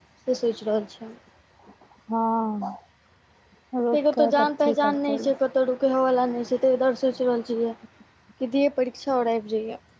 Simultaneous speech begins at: 3.9 s

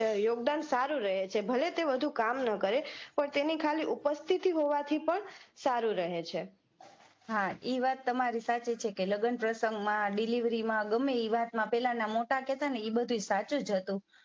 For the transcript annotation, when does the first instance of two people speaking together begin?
none

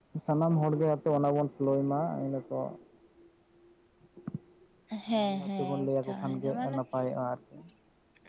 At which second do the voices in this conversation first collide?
5.2 s

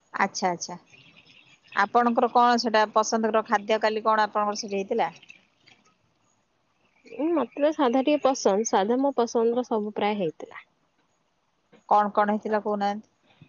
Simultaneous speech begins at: none

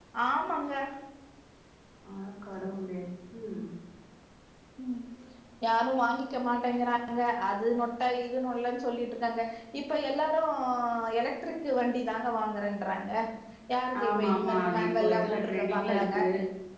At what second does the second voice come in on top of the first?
14.0 s

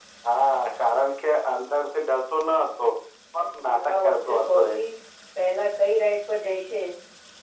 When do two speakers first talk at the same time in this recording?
3.4 s

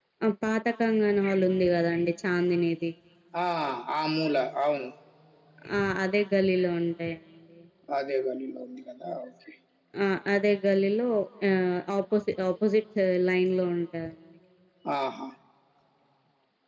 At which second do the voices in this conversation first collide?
none

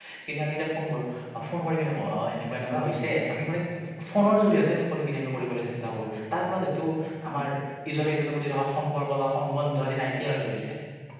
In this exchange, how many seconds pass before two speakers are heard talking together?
none

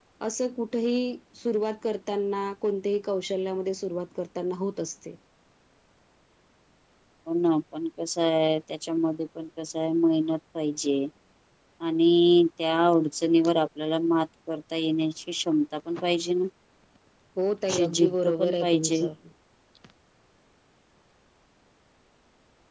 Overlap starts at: 17.7 s

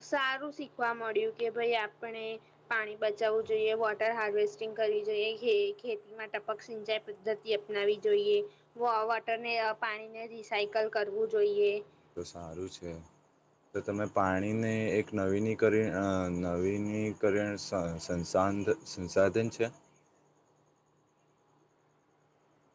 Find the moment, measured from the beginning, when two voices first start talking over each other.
none

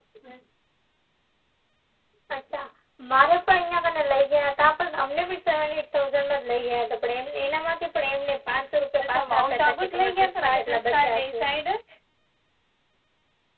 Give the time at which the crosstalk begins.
9.0 s

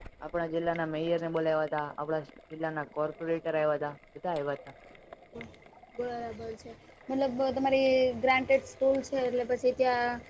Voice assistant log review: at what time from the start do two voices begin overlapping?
none

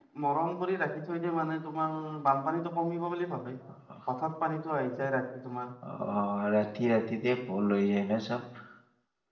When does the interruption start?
none

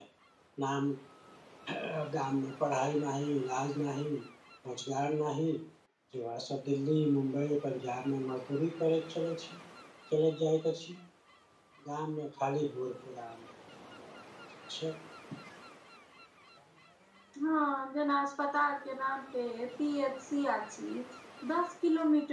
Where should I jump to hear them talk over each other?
none

